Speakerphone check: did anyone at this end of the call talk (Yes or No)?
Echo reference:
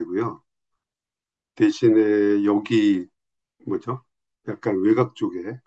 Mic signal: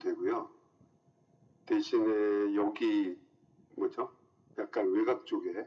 No